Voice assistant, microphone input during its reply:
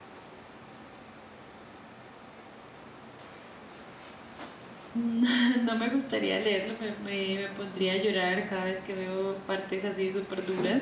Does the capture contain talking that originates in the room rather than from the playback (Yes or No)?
Yes